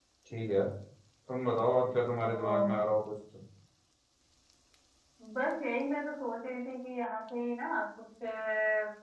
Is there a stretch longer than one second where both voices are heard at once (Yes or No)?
No